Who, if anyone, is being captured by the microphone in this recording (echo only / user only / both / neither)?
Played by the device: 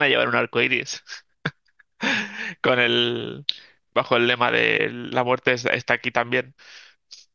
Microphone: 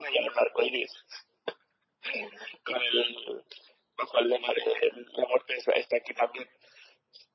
echo only